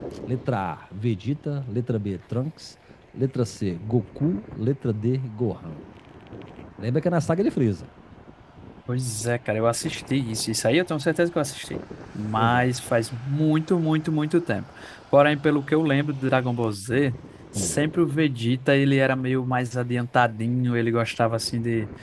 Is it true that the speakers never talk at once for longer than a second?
Yes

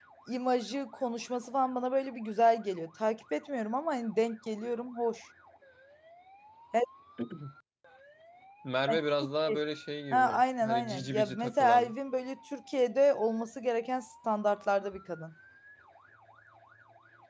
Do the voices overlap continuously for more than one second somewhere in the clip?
Yes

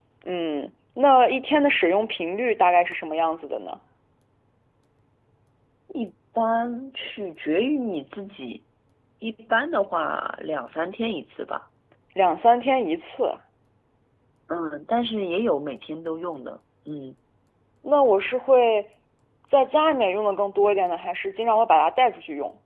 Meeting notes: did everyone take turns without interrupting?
Yes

